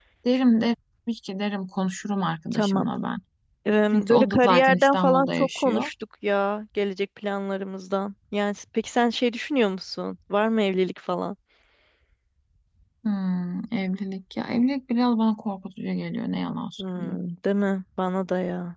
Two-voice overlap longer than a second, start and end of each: 3.9-5.9

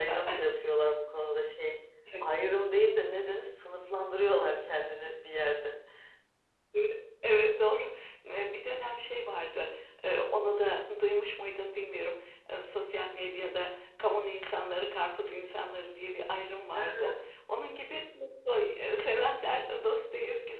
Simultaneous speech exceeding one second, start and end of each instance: none

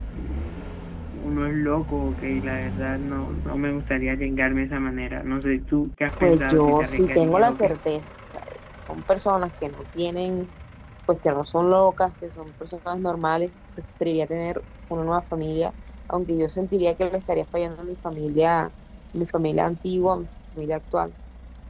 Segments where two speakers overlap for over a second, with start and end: 6.2-7.8

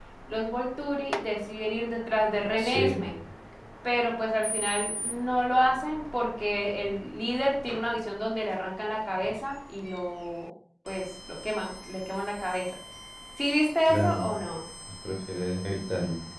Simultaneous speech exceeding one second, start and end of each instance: none

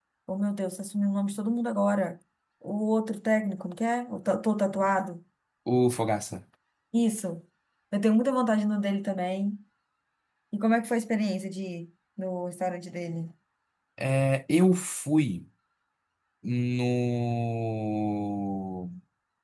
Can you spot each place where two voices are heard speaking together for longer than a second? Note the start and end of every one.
none

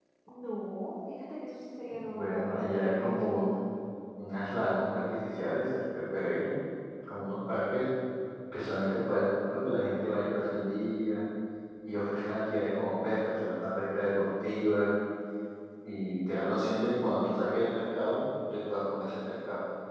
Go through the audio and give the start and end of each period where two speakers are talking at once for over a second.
2.1-3.3

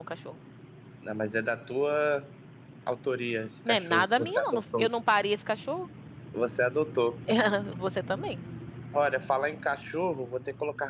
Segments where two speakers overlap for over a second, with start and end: 3.7-4.9

